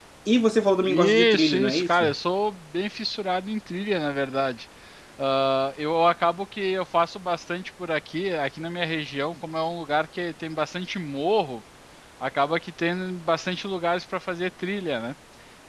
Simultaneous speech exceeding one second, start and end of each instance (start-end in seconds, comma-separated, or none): 0.9-2.1